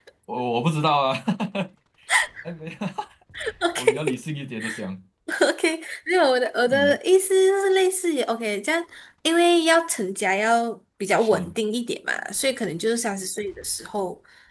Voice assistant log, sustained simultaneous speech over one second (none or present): none